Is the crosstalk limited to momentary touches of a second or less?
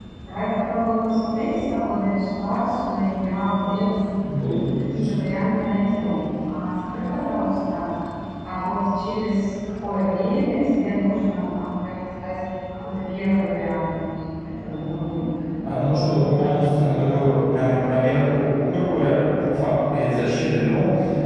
No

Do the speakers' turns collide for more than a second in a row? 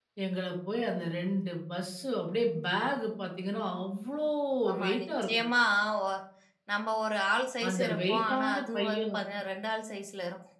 Yes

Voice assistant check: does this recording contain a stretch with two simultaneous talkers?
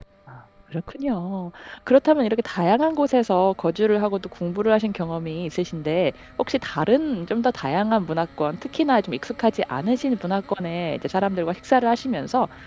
No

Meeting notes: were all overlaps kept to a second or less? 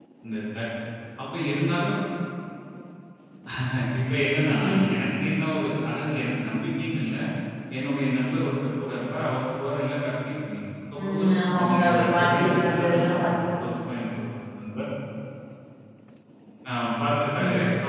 No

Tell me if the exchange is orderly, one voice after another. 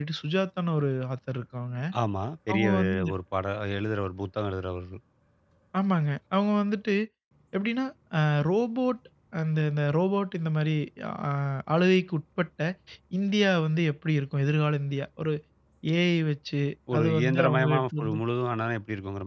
No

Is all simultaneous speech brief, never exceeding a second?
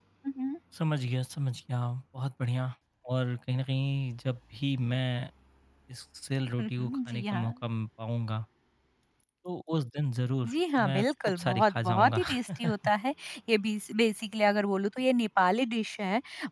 No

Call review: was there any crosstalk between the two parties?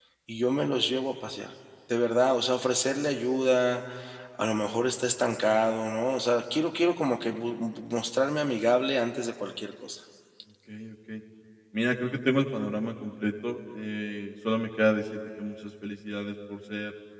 No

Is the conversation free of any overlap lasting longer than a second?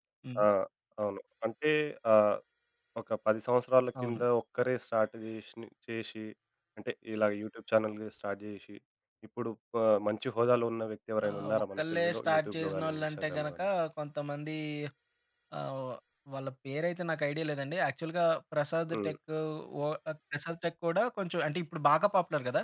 No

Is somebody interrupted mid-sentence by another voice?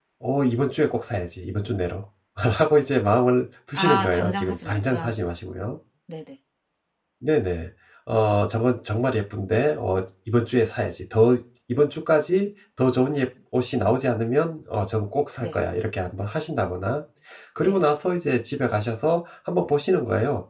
Yes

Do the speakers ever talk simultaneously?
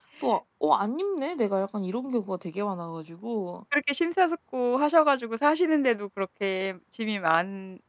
No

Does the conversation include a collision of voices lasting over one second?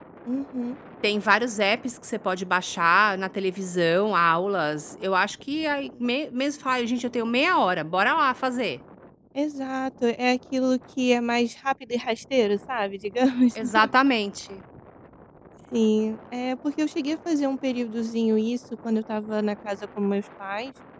No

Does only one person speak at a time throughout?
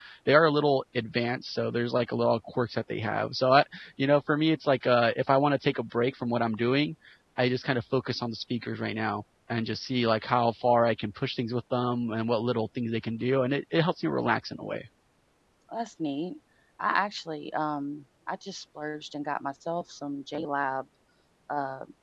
Yes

